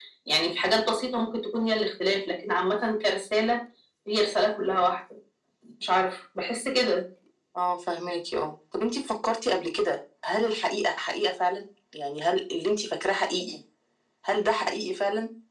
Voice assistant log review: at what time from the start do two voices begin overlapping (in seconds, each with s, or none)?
none